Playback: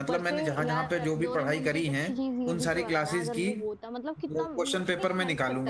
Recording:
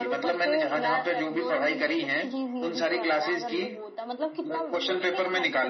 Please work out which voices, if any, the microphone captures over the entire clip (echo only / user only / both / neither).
echo only